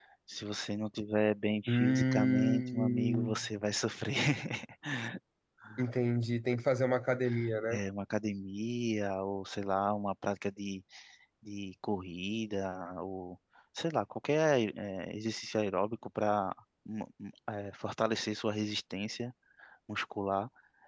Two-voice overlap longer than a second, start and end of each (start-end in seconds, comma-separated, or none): 1.7-3.5